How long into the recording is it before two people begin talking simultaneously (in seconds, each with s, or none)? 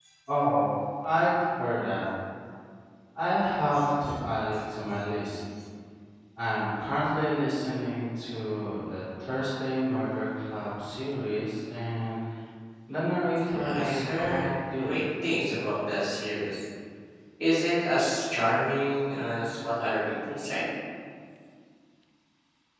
13.4 s